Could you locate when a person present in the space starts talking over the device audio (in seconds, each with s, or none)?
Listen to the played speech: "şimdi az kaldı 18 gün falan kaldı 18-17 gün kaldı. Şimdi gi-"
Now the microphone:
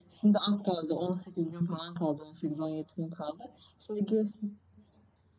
none